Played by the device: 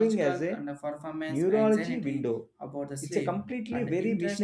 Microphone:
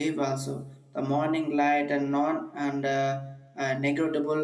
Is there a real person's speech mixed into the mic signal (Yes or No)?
Yes